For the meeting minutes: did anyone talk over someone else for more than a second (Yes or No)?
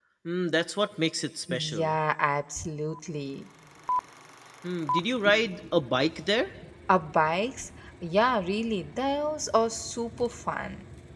No